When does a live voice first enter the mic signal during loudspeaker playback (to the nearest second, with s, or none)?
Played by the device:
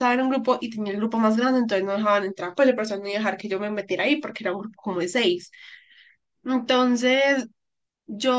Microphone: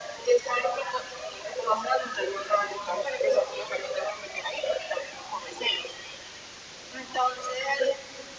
none